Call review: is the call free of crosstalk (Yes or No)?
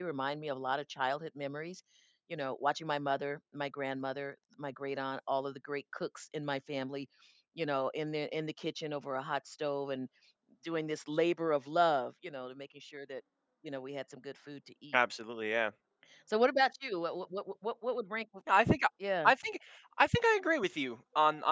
Yes